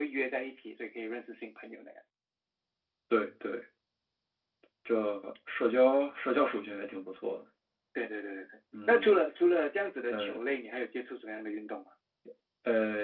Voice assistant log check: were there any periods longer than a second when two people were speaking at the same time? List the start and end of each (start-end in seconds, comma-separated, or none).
none